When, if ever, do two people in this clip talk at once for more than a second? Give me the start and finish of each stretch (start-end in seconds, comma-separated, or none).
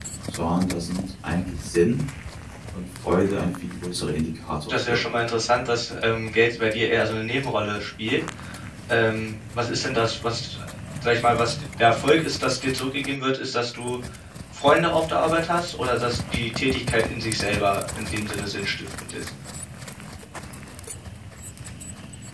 none